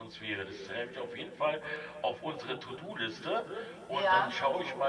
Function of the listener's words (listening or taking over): listening